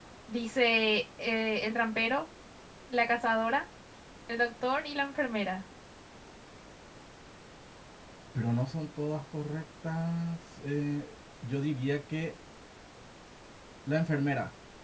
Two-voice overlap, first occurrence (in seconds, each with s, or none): none